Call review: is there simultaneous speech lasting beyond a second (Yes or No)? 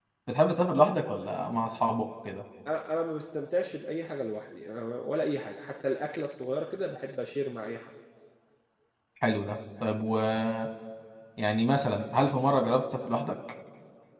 No